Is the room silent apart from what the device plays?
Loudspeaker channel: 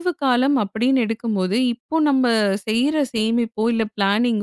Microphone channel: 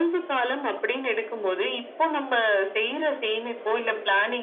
Yes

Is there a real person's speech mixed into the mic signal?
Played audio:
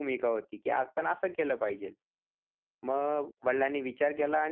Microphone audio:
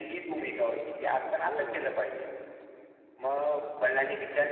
Yes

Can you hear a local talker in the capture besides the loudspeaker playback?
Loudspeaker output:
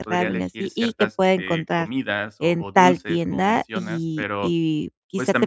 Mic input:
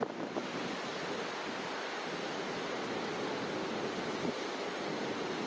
No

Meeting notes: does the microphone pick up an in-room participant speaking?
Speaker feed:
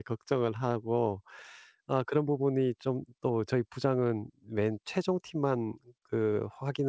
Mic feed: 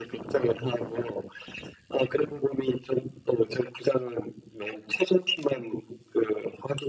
No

